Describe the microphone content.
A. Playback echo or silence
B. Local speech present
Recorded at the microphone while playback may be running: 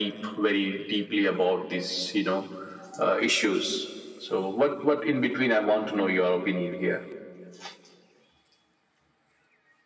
A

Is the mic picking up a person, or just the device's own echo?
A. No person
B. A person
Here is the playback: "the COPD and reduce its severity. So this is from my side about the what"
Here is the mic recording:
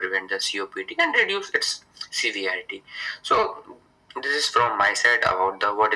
A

